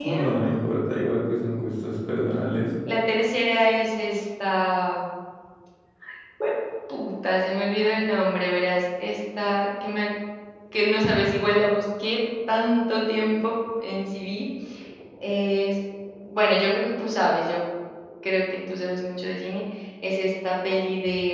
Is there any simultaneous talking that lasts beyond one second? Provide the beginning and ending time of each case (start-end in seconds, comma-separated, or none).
none